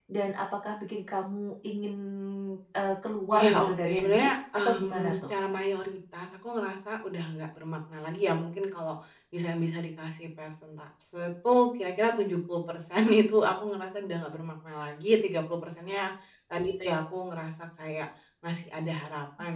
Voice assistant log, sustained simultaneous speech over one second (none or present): present